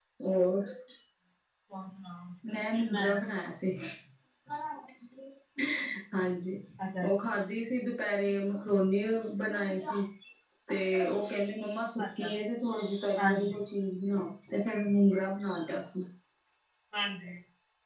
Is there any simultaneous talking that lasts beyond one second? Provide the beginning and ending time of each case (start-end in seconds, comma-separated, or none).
none